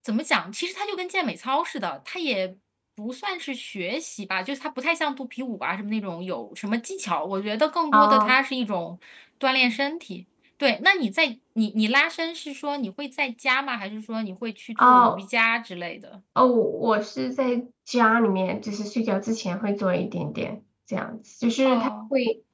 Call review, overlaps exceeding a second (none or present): none